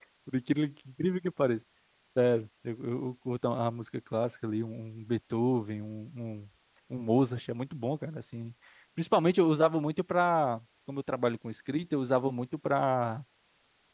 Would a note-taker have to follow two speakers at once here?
No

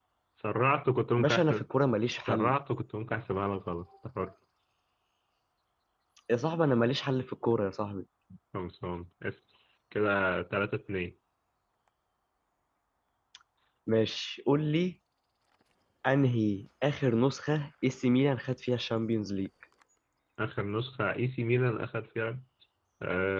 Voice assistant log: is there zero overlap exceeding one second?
Yes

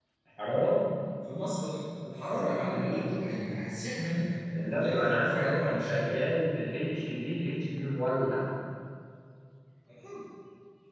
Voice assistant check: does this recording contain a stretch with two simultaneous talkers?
Yes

